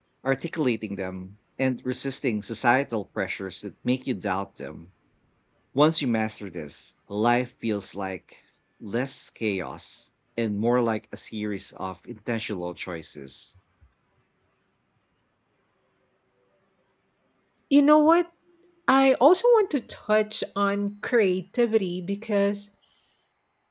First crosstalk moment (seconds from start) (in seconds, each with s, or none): none